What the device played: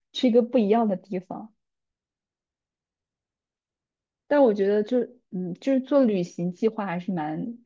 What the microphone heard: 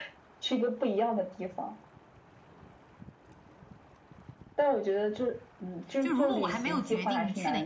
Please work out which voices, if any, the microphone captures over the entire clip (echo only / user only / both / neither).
both